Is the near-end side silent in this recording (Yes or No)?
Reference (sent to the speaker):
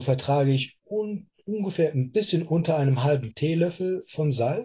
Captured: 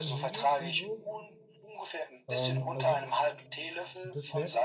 No